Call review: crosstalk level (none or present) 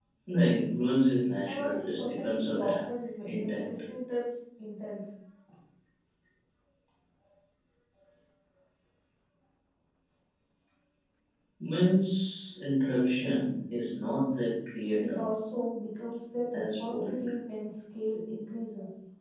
present